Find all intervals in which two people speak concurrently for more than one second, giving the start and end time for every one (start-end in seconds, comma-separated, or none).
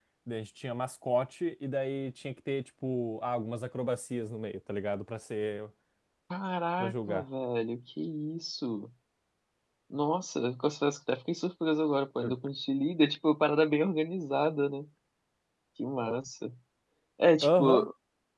none